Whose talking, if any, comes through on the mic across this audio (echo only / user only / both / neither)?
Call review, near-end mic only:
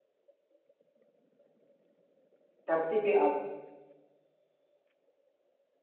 user only